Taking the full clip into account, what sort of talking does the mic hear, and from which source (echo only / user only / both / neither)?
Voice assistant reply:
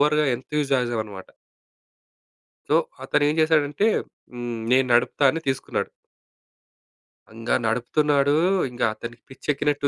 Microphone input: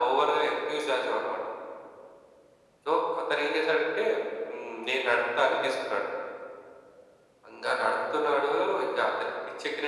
echo only